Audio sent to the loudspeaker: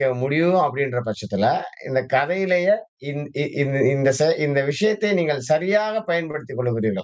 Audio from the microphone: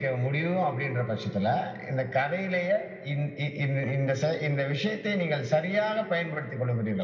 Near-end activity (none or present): none